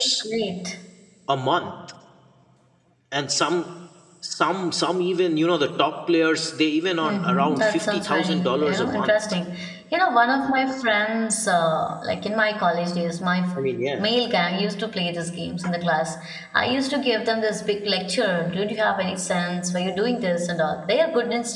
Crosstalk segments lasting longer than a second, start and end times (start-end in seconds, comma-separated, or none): 7.0-9.2